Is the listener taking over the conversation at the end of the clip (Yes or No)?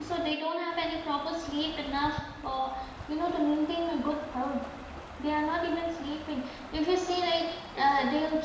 No